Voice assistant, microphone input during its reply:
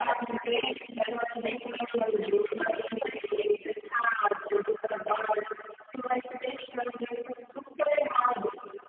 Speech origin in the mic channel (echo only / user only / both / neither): echo only